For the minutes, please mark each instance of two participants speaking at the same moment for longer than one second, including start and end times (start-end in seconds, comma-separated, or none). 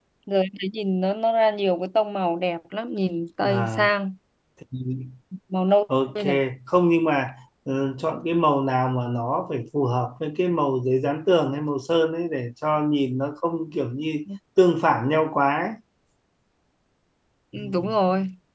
none